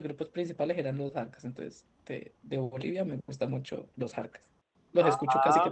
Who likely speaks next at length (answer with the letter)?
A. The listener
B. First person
A